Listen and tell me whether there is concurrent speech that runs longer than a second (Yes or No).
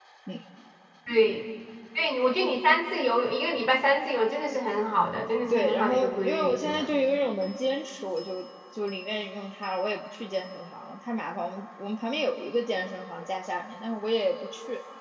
Yes